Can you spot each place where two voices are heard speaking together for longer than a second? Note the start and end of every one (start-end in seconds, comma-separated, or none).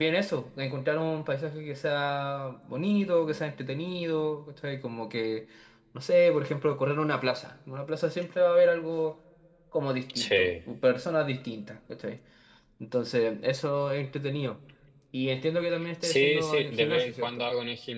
16.0-17.5